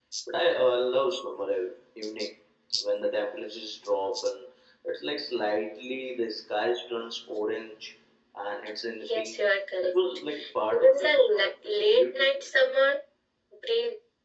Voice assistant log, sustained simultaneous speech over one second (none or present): present